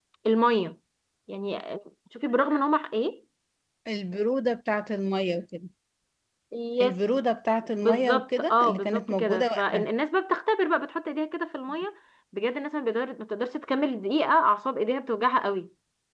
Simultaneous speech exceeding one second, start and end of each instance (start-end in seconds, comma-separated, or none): 7.8-9.9